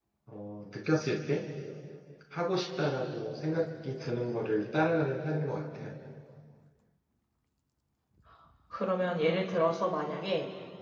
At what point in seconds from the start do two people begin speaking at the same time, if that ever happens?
none

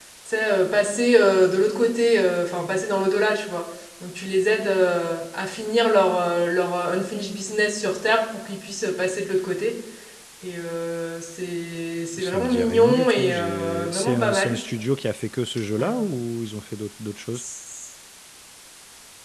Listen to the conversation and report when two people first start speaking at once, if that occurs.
12 s

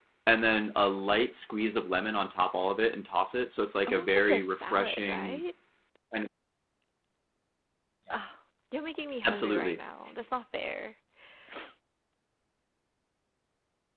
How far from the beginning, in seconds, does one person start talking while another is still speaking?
4 s

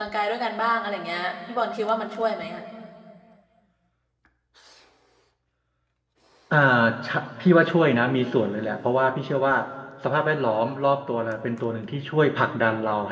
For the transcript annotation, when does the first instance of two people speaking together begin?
none

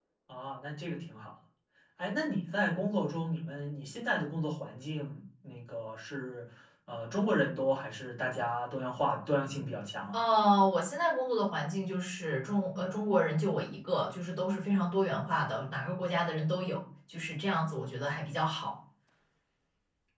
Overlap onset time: none

